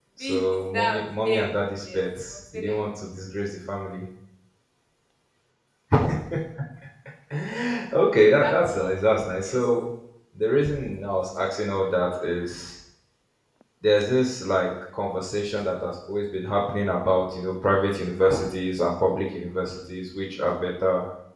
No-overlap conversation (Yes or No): No